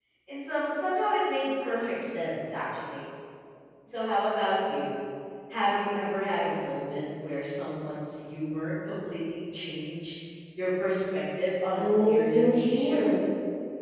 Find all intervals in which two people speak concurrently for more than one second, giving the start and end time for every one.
11.8-13.1

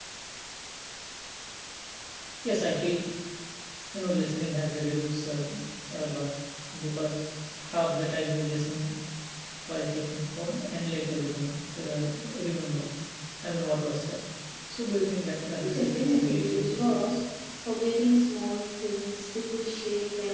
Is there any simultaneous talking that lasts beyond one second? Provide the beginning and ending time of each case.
15.6-17.0

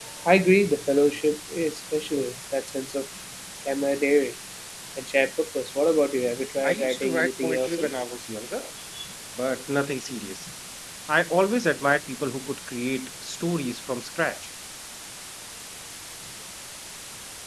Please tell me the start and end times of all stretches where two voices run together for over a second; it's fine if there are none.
6.6-7.9

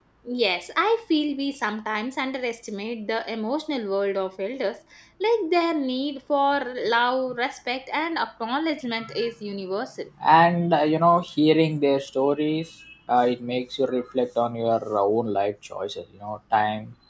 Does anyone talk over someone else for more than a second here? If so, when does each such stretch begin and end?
none

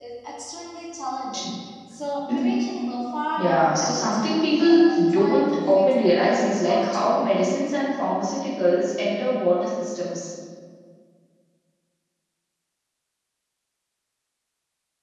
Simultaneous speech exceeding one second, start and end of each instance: 3.4-7.3

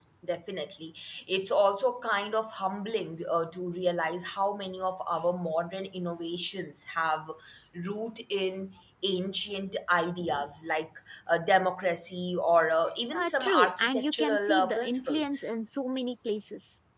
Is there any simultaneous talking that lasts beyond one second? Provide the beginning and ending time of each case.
13.1-15.5

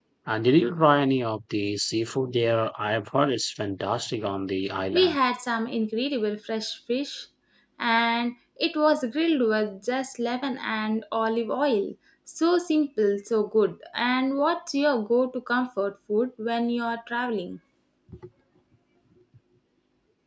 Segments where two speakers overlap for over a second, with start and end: none

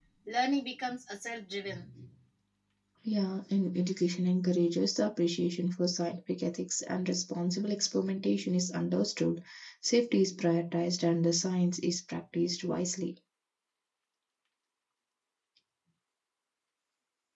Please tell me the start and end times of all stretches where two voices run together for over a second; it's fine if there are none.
none

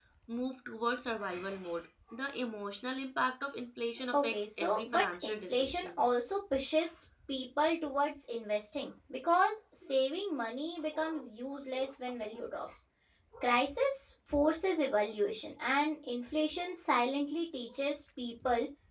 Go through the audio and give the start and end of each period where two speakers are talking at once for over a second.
4.1-6.0

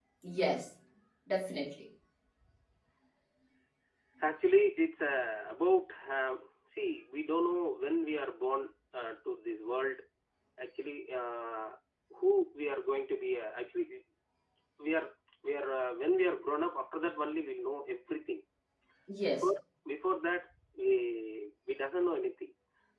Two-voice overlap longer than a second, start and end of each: none

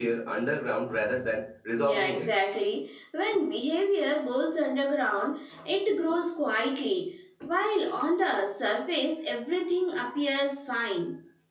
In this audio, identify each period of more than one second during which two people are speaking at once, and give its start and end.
none

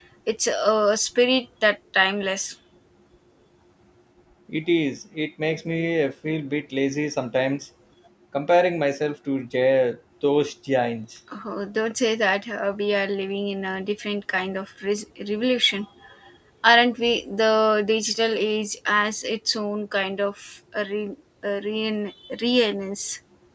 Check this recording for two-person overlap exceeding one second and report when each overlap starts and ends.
none

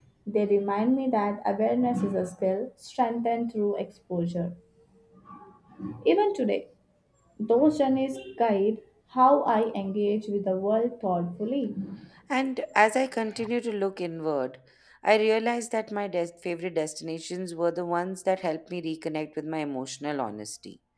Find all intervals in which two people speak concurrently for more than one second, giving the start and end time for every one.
none

